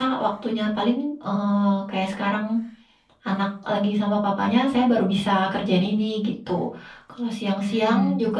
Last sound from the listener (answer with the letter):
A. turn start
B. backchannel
B